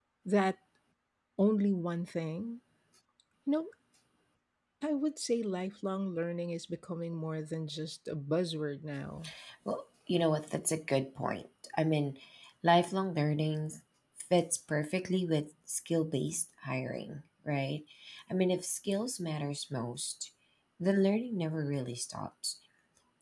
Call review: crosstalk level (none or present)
none